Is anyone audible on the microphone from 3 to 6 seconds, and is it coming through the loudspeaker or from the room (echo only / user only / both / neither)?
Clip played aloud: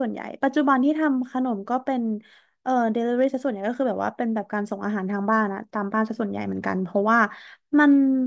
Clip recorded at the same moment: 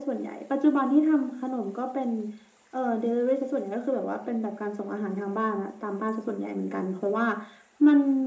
echo only